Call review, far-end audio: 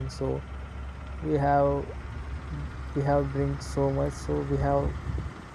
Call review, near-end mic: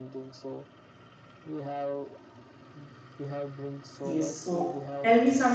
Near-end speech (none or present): present